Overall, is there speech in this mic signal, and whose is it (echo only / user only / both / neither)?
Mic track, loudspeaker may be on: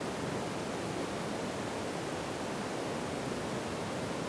neither